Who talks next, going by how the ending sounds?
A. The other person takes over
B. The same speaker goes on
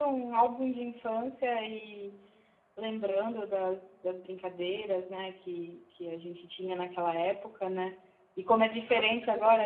B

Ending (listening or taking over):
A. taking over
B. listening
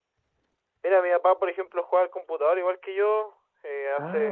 B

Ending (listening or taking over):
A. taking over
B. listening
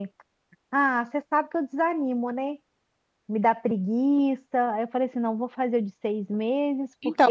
A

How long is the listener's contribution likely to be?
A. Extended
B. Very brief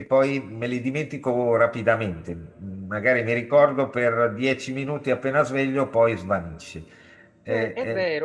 A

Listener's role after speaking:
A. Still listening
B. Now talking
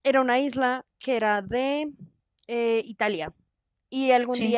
A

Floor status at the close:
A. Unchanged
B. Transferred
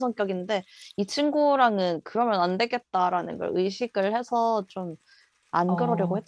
B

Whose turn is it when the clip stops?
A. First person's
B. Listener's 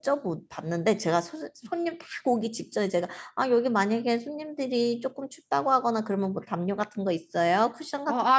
B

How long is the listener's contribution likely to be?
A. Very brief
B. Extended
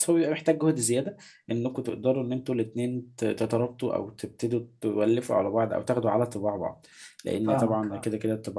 A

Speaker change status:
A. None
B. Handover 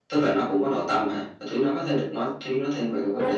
B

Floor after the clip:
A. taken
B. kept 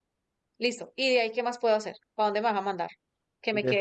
B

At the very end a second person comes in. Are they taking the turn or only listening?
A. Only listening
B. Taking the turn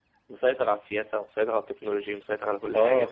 B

